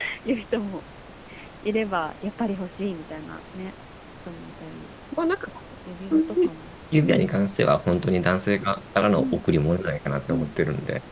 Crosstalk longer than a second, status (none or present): none